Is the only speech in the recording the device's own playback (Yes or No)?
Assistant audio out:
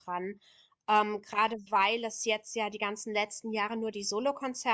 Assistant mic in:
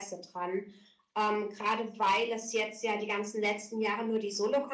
Yes